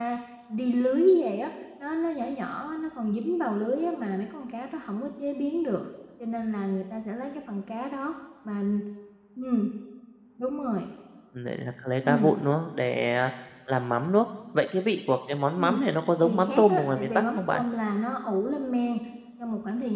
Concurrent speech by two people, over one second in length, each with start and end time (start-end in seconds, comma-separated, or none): 16.2-17.6